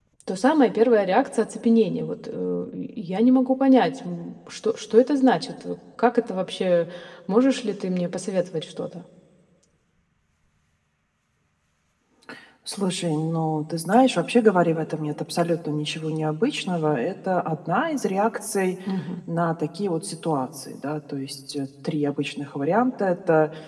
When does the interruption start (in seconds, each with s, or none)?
none